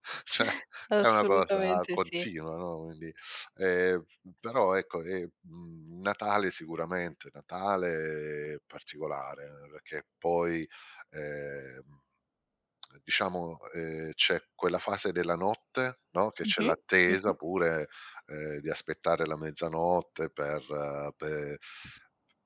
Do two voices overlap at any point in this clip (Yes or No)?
Yes